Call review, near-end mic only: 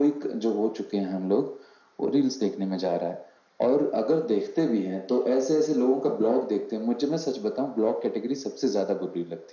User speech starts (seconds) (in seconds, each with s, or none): none